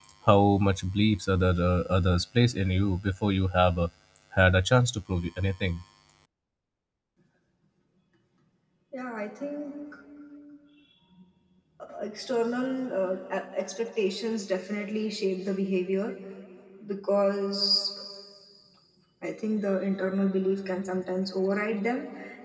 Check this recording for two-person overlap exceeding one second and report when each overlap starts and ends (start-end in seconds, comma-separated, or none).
none